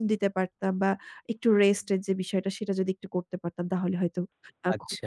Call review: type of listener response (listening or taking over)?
taking over